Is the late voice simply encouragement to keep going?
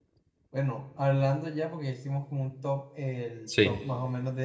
Yes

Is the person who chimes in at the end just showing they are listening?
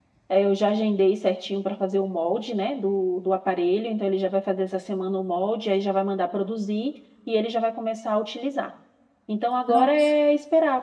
Yes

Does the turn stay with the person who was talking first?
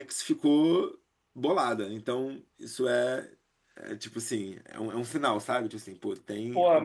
No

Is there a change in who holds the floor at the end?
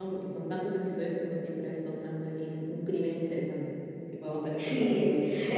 Yes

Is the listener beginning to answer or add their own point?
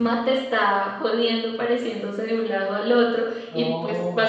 No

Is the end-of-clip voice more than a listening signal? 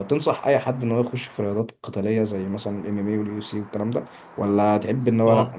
No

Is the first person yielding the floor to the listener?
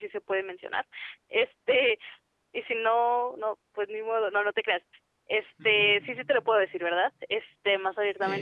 No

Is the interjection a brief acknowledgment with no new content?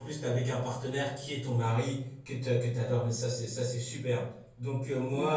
Yes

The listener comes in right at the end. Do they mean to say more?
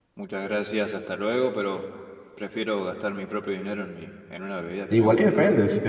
Yes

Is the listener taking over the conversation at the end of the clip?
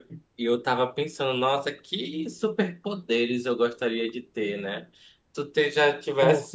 No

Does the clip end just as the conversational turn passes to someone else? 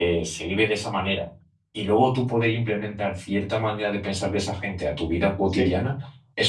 No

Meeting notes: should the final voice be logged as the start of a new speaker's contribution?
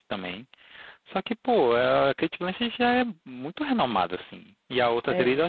No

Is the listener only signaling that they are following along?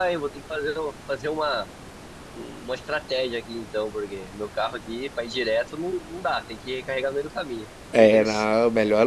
No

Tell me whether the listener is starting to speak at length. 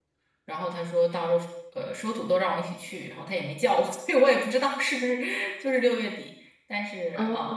No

